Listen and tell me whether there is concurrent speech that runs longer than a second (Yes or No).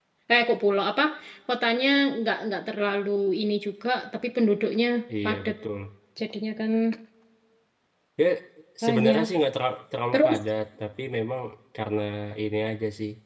No